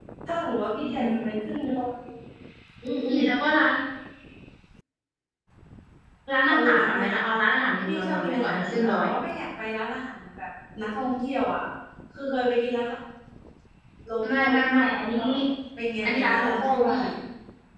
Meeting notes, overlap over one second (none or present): present